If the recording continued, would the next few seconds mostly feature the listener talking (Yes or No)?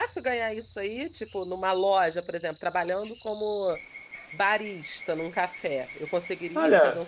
Yes